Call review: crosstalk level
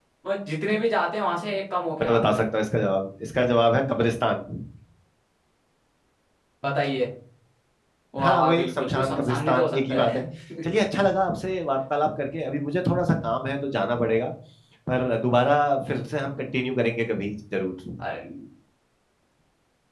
present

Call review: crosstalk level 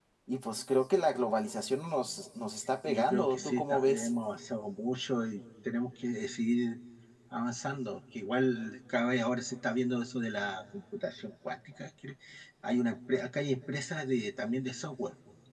present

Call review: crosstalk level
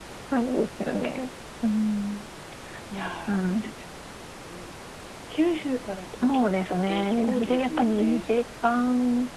present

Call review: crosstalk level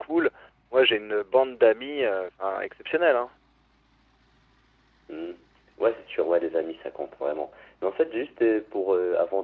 none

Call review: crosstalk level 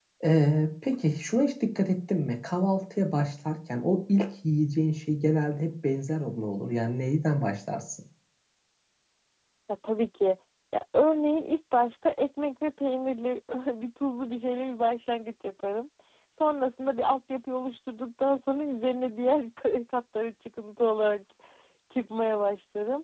none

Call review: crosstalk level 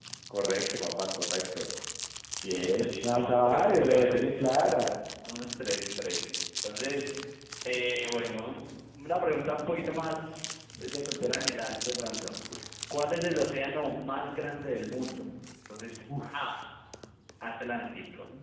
present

